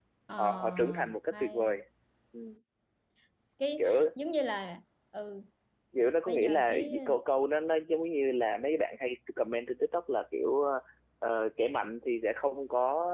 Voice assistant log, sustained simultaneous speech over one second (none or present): present